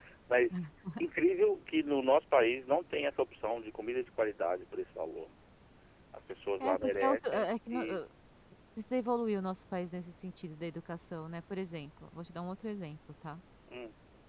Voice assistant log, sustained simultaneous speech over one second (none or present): present